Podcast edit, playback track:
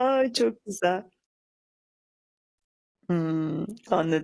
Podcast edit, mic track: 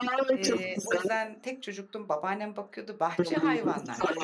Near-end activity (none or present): present